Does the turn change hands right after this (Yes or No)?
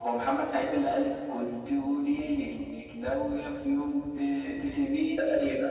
Yes